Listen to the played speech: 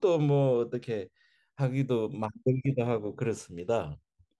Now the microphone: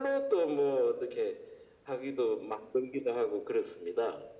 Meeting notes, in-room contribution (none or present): none